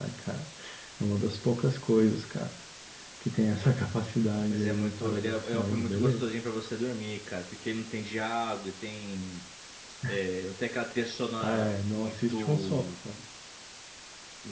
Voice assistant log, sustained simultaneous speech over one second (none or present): present